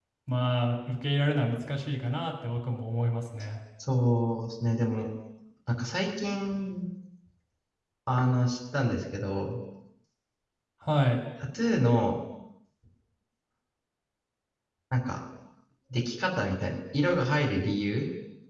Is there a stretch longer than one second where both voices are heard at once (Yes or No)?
No